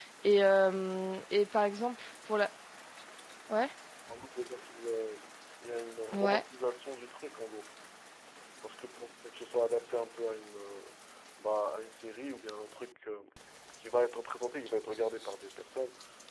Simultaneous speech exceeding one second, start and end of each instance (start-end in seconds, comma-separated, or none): none